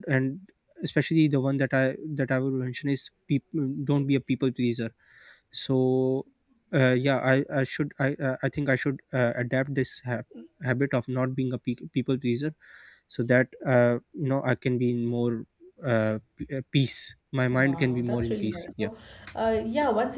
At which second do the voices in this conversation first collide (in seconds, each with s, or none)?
17.5 s